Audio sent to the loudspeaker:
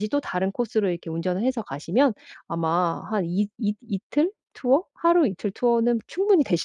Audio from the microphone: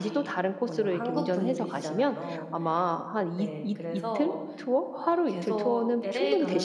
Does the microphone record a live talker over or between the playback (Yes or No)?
Yes